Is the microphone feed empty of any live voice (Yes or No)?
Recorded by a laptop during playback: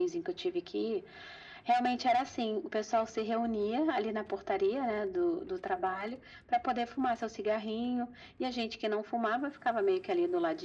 Yes